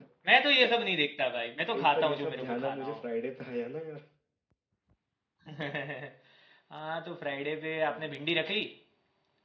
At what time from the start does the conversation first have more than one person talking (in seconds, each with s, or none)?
1.7 s